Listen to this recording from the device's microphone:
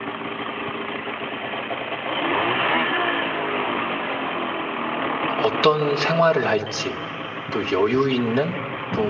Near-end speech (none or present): present